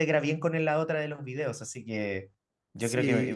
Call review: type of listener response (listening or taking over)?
taking over